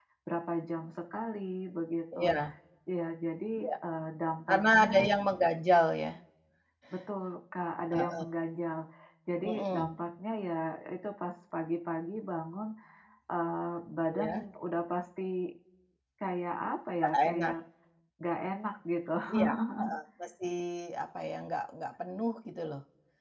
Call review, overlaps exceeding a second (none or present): none